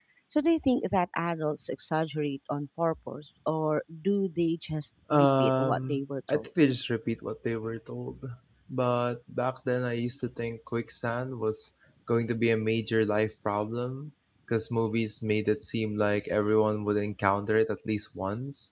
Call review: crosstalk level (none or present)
present